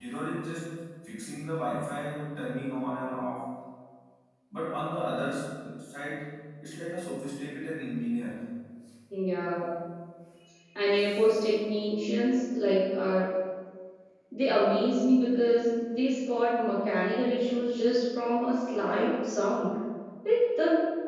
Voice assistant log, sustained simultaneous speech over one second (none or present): none